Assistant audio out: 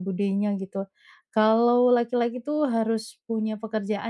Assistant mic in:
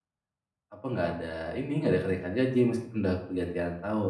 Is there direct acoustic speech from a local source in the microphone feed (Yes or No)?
Yes